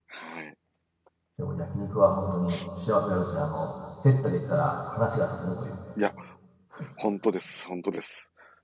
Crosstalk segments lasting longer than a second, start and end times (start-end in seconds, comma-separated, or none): none